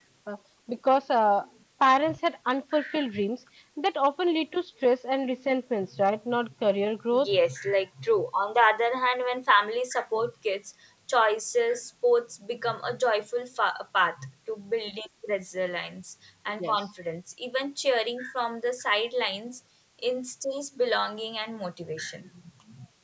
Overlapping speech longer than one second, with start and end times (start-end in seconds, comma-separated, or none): none